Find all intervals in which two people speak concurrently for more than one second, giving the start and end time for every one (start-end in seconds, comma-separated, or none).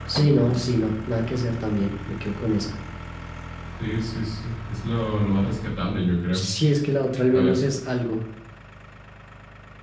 none